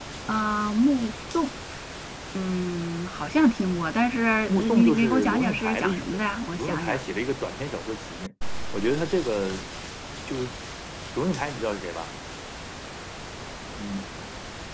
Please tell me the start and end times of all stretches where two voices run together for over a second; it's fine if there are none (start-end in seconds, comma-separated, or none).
4.5-7.0